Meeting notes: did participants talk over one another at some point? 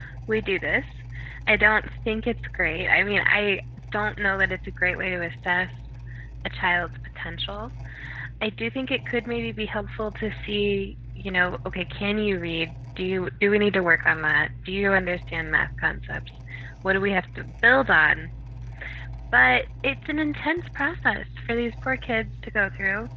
No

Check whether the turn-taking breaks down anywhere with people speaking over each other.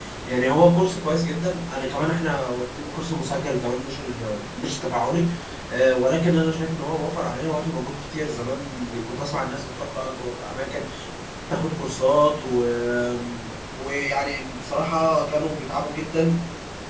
No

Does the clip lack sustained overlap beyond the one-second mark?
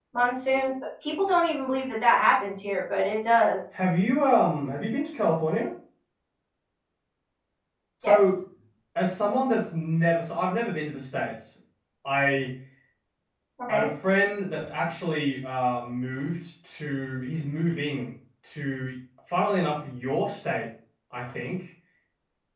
Yes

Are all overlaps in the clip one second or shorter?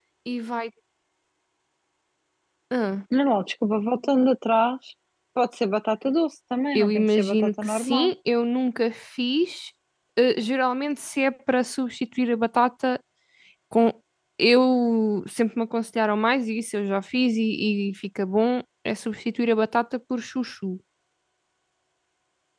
No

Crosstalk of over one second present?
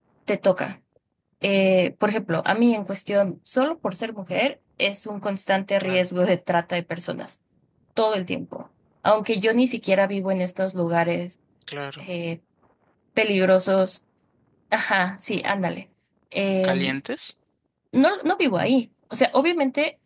No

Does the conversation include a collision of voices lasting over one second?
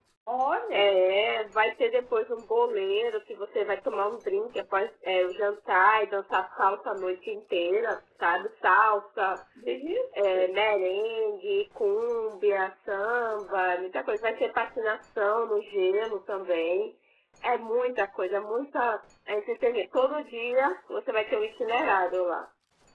No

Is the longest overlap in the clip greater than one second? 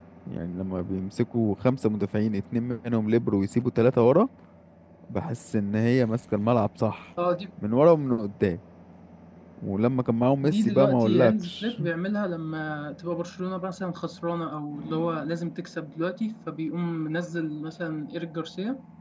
Yes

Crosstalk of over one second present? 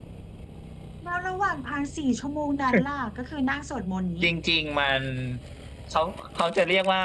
No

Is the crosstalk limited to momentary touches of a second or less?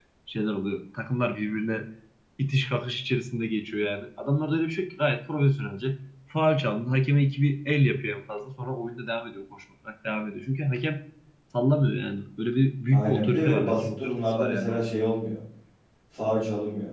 No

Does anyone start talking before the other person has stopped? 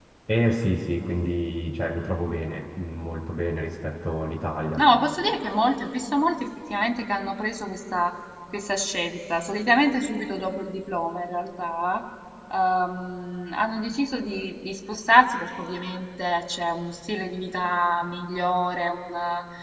No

